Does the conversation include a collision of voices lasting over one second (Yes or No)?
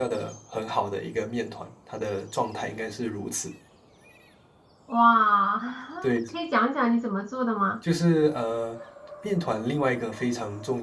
No